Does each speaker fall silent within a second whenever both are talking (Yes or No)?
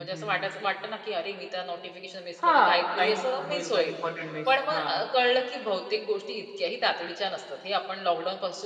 No